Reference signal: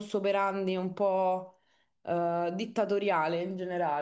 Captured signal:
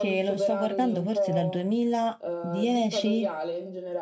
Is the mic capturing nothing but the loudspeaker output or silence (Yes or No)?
No